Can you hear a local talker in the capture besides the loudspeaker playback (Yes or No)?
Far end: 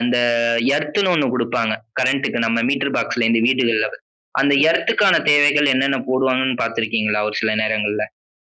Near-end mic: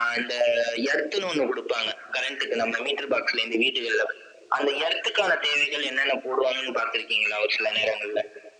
No